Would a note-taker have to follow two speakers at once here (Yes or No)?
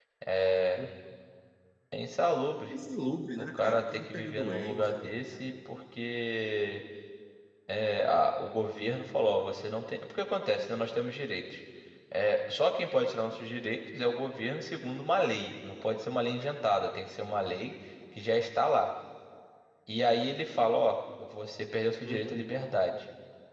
Yes